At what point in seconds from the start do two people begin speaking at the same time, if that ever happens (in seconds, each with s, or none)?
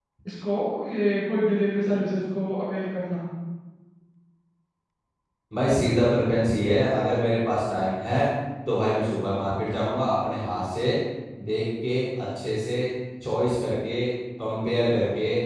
none